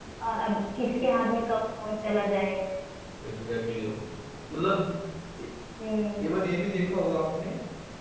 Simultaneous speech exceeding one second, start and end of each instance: none

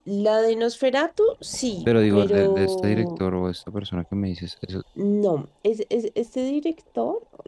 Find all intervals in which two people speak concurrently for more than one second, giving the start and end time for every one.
1.9-3.2

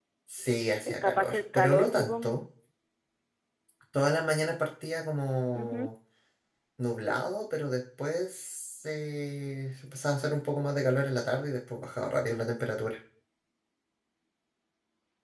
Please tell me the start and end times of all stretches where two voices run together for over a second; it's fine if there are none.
0.9-2.4

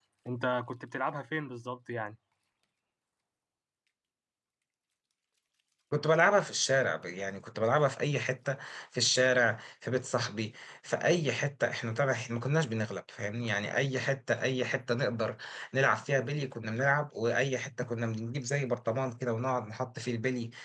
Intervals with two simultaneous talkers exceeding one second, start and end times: none

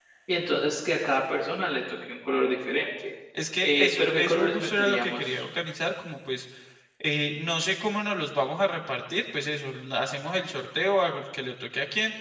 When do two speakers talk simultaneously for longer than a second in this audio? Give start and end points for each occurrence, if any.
3.6-5.4

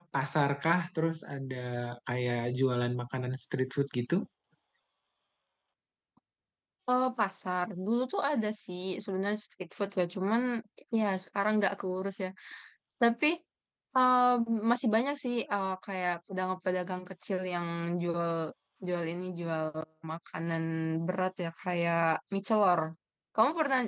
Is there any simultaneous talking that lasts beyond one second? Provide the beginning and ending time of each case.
none

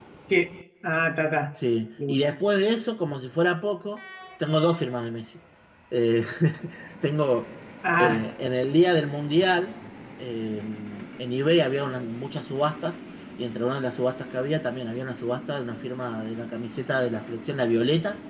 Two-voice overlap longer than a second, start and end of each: none

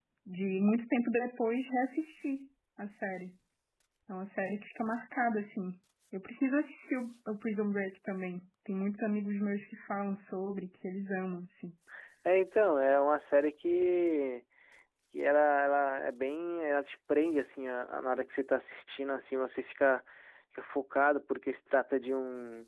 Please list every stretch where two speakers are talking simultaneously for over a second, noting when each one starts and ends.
none

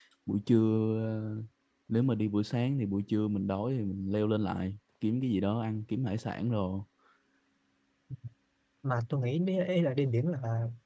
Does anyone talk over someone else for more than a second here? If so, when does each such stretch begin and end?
none

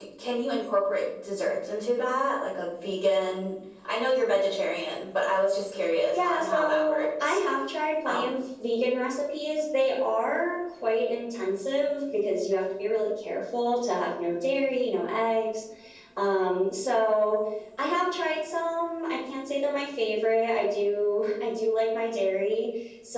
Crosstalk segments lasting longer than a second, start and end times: 6.1-7.4

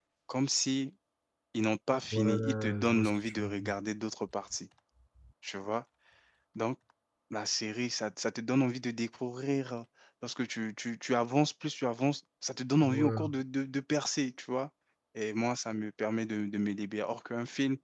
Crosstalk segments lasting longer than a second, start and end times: 2.1-3.7

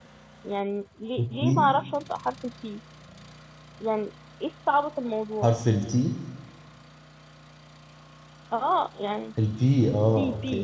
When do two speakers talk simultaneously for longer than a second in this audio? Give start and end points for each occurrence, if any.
none

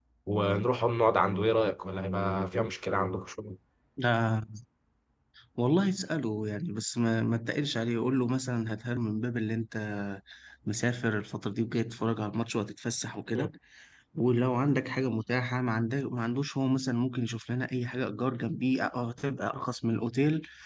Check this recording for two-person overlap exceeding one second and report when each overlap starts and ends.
none

